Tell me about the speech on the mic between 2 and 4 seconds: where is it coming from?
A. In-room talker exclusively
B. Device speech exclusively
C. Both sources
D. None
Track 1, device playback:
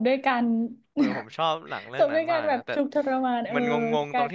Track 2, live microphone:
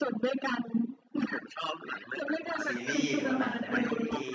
C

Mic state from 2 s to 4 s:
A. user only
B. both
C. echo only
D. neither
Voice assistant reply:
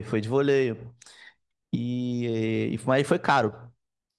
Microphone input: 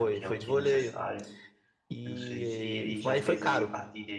B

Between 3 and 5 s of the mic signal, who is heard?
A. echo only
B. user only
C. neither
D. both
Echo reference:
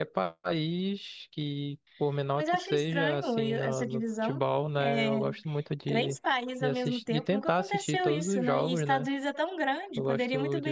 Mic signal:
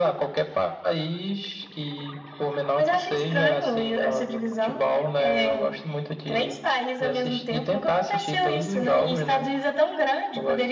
A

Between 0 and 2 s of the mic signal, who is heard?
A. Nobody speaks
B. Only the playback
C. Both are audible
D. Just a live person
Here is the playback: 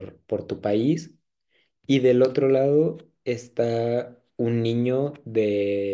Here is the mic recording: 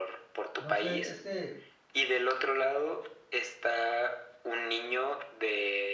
C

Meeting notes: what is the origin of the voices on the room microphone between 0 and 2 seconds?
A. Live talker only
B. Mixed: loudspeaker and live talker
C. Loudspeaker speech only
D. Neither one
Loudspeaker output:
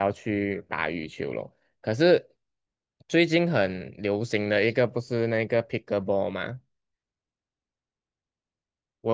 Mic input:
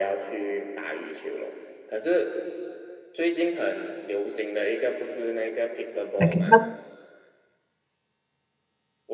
C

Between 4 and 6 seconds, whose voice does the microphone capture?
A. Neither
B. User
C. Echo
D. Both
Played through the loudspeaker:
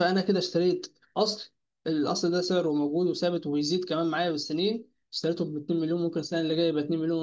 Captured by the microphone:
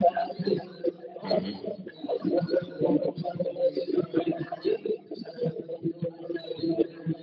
C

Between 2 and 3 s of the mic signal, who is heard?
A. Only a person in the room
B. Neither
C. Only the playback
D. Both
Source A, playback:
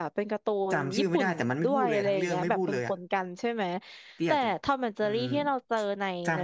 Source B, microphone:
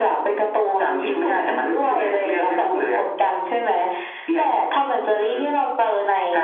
C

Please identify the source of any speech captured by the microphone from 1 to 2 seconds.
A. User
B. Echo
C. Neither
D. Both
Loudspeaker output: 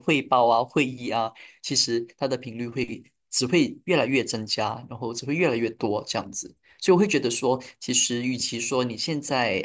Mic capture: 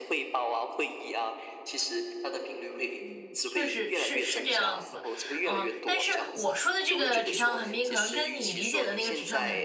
B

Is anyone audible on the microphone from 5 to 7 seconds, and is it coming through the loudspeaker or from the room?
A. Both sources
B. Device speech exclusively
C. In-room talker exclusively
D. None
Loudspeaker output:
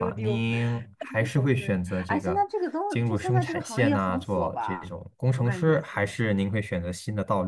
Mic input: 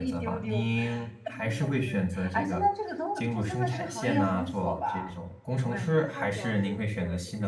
A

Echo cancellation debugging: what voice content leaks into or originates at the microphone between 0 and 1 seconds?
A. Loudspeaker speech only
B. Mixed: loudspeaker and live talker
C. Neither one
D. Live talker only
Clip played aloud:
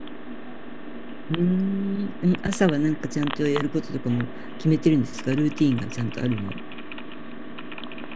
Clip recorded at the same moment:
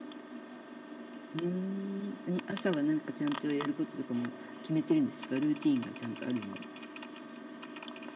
C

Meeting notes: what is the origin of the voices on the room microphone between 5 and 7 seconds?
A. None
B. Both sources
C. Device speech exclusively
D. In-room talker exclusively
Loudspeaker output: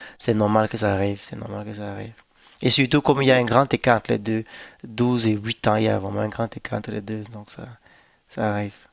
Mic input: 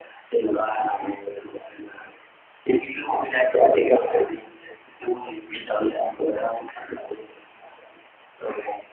C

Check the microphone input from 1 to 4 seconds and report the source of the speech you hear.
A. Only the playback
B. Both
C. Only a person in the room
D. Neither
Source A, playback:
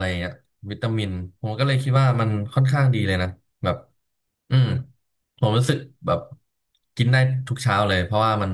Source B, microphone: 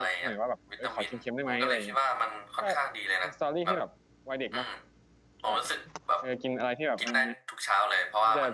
B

